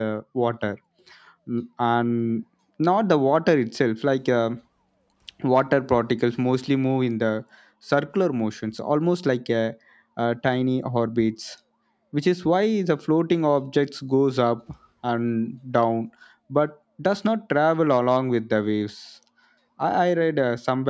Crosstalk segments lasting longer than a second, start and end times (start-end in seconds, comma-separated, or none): none